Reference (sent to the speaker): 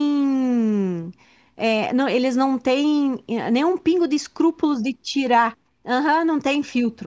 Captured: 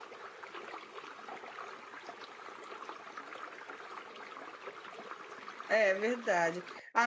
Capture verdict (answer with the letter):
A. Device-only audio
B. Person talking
B